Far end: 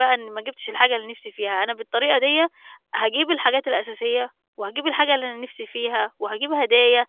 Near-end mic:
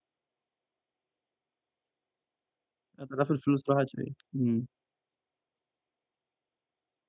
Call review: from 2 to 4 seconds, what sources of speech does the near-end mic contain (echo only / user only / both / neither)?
user only